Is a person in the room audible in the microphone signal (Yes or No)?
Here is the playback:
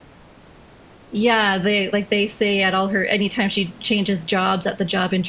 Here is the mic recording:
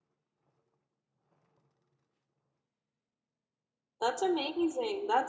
Yes